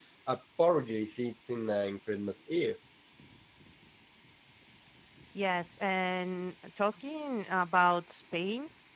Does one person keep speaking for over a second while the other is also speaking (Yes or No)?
No